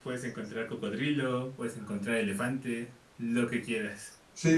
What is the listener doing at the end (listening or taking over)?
taking over